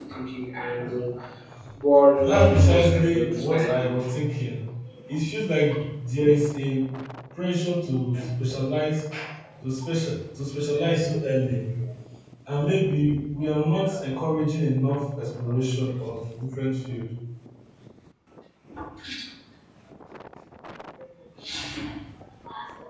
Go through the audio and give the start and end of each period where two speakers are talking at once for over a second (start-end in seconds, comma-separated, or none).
2.2-3.9